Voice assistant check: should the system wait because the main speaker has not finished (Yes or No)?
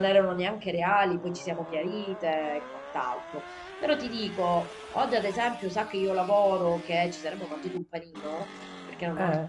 Yes